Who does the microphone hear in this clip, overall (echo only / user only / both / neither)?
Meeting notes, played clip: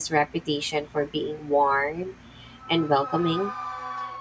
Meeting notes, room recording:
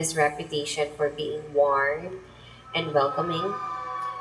echo only